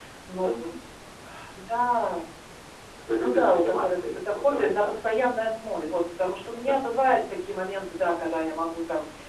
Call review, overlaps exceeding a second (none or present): present